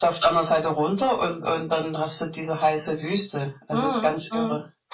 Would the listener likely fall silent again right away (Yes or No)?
No